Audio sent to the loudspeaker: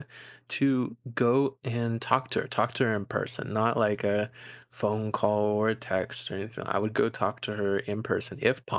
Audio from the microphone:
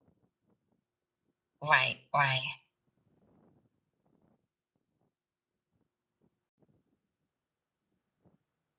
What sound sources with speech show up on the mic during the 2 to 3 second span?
user only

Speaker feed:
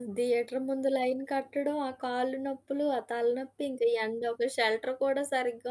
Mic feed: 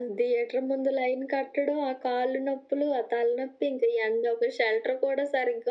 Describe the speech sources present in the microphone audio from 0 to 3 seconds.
echo only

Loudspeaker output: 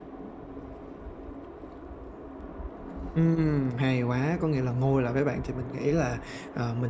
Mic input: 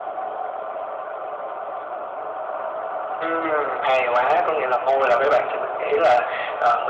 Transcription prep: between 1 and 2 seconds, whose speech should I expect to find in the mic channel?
neither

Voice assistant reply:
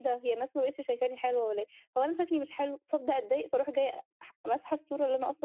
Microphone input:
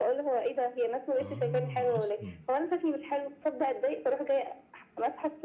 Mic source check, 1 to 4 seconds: both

